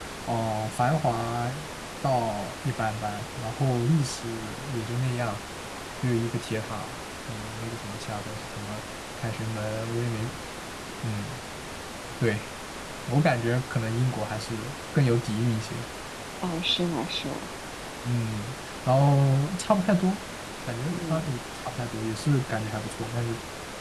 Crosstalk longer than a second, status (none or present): none